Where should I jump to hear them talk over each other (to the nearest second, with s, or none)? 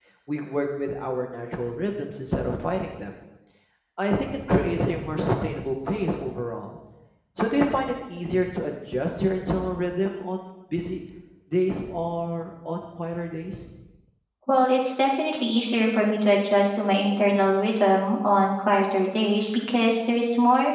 none